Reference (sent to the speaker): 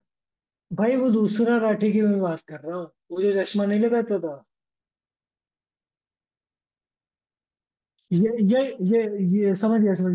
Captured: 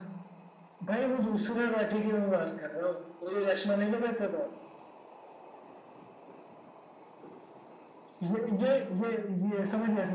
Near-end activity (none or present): none